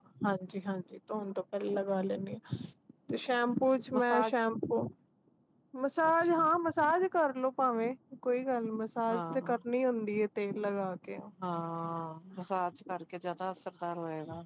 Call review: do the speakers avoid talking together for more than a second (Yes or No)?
Yes